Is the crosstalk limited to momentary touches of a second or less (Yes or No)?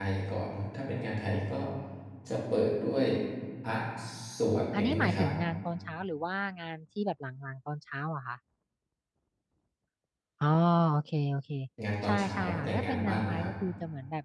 No